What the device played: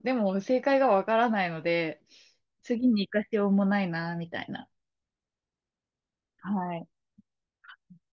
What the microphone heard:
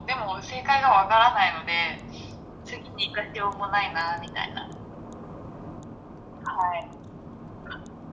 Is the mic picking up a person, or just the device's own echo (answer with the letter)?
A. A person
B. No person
B